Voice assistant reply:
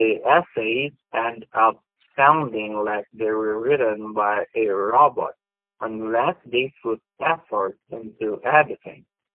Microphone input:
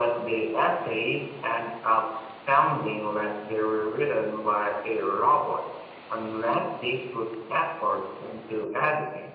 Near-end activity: none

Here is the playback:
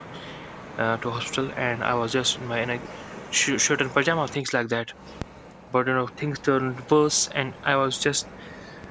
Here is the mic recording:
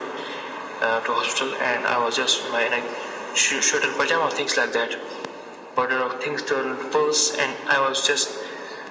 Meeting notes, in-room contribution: none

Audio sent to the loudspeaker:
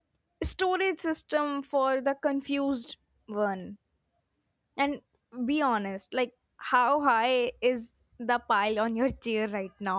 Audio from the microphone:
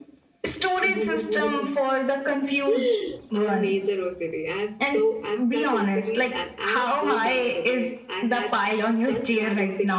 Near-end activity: present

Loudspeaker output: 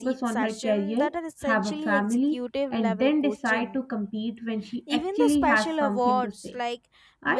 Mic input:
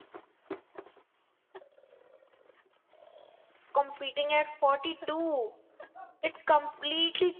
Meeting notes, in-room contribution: present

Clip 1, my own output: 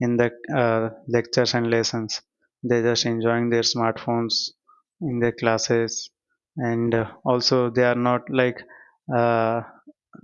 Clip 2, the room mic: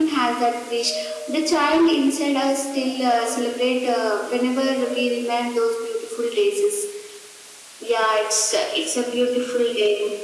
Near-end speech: present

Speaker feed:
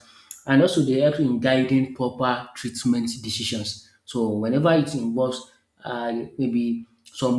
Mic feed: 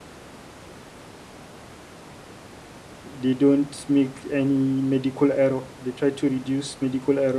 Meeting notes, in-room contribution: present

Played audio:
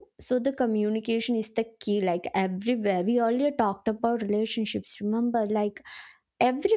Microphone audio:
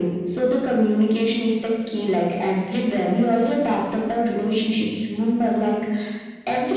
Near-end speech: none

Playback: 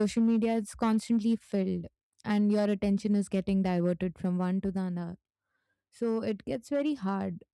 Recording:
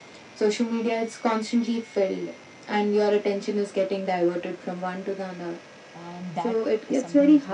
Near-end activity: present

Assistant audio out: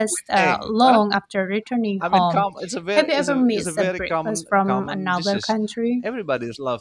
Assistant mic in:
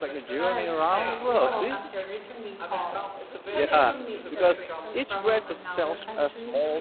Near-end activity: present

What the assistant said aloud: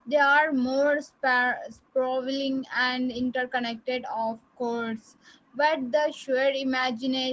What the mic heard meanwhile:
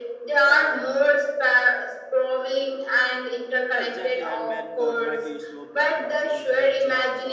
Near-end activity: present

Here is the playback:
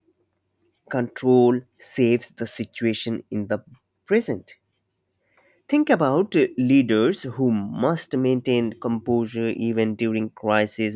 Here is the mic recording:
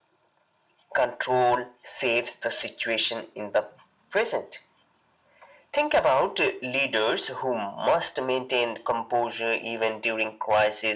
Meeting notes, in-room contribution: none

